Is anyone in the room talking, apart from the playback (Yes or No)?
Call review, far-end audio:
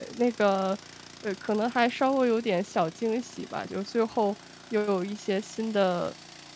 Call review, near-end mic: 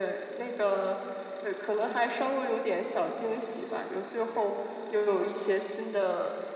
No